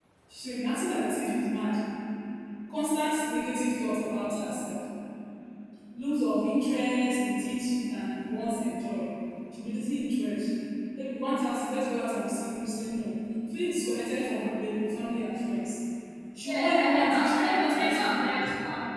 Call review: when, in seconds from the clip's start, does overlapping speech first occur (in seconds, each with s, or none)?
16.4 s